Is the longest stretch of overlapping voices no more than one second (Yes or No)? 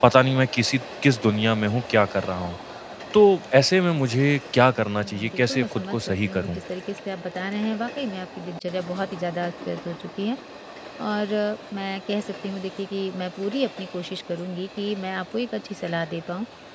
No